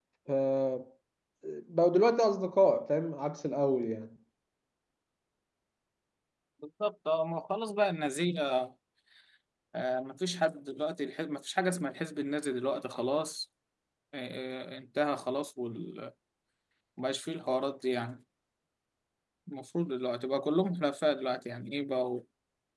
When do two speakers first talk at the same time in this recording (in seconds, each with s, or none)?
none